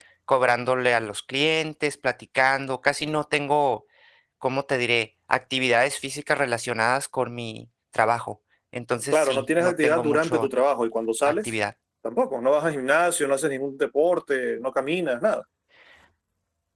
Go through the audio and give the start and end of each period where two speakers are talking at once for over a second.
9.1-10.5

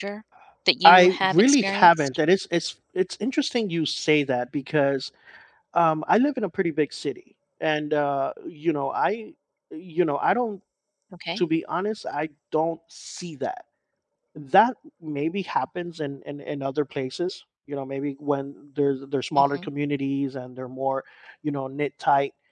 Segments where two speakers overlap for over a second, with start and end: 0.8-2.1

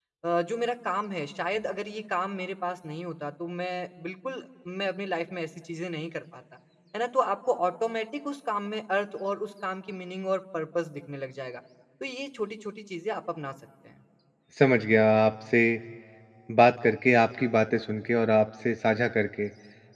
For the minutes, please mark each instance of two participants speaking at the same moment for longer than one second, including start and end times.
none

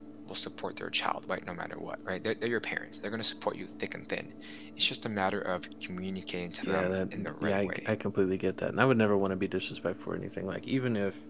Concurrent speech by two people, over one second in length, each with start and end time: 6.6-7.9

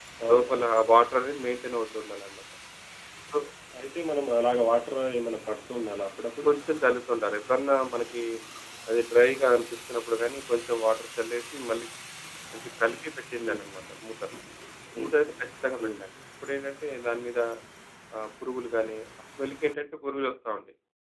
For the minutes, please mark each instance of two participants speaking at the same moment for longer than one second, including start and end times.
none

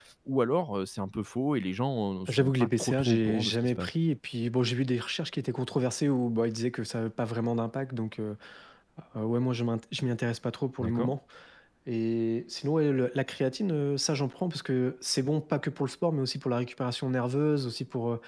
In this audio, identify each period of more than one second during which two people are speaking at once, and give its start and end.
2.3-3.9

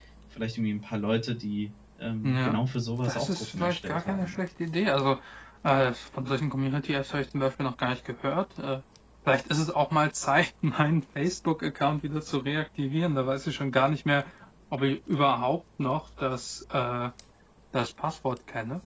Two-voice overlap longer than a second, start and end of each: 3.0-4.4

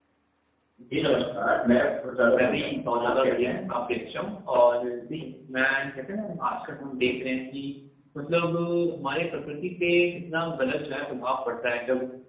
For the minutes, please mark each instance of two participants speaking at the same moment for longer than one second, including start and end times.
2.4-3.6

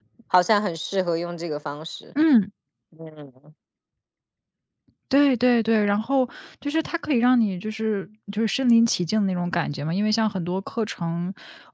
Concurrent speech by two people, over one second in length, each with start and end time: none

